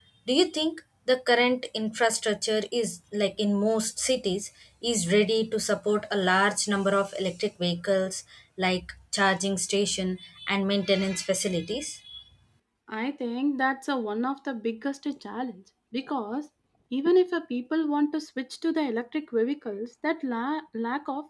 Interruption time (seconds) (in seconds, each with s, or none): none